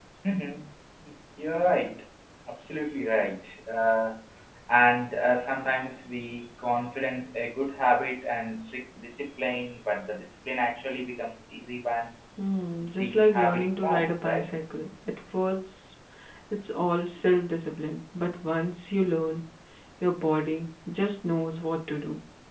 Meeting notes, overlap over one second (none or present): present